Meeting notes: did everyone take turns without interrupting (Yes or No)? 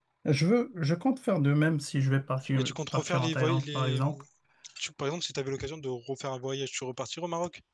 No